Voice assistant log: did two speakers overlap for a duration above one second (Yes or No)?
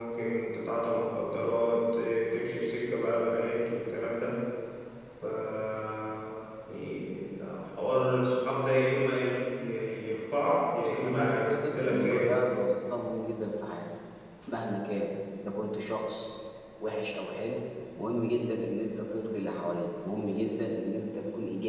Yes